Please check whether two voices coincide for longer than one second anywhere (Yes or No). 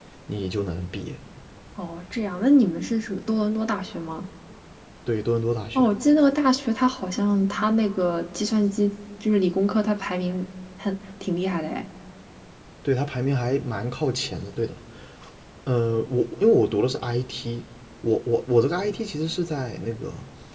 No